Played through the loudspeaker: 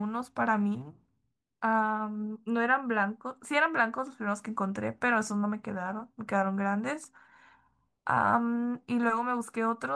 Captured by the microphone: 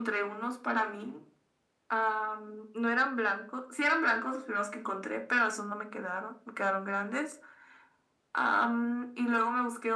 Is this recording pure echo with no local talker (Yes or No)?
Yes